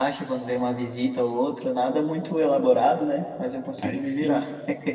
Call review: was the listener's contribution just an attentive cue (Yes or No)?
No